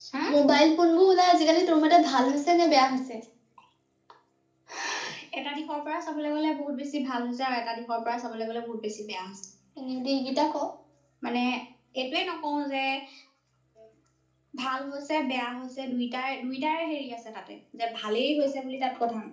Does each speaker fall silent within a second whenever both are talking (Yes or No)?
Yes